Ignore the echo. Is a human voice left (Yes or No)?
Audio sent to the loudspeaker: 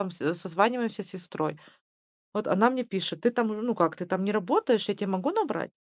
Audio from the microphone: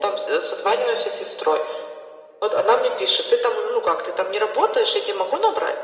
No